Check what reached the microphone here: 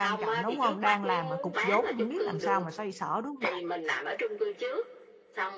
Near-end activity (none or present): present